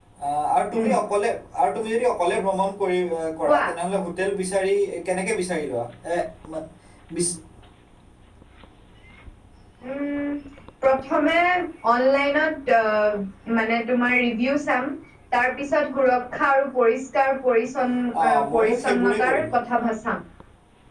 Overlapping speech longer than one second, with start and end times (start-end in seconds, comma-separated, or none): 18.2-19.5